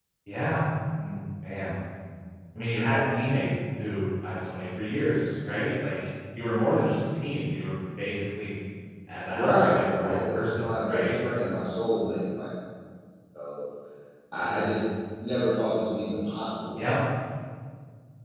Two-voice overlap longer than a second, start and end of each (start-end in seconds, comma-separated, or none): 9.3-11.1